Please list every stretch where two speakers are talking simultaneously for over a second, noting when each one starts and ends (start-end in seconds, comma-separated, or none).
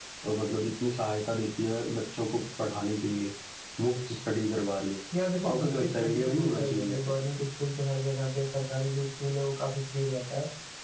5.5-7.0